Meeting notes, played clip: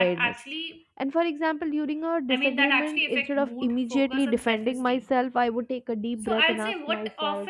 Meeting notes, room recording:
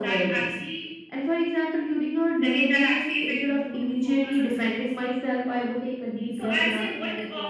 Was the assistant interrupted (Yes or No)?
No